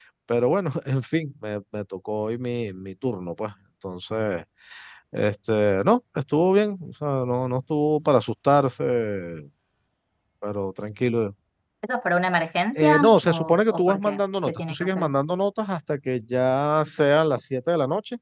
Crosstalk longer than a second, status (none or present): present